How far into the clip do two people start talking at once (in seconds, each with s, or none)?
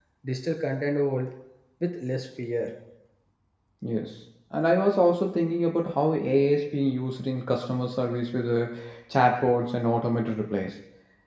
none